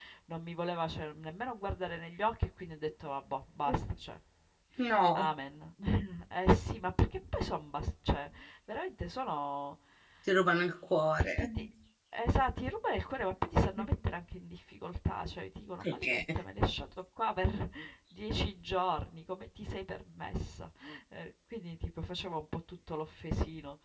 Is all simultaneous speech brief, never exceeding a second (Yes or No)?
Yes